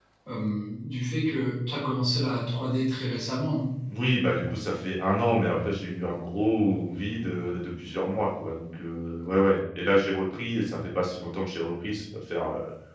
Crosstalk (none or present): none